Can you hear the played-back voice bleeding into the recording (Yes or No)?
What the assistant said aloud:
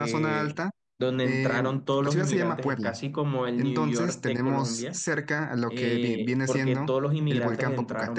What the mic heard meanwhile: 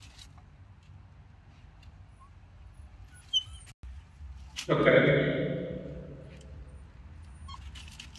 No